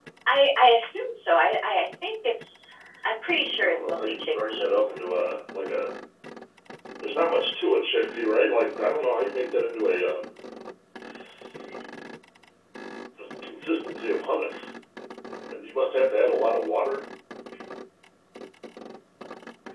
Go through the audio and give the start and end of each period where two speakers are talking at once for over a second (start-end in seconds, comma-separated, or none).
3.6-4.9